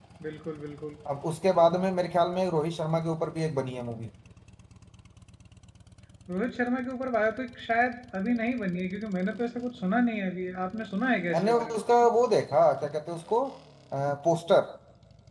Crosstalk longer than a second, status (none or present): none